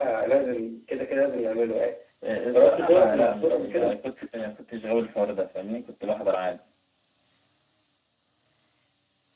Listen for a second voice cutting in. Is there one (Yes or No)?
Yes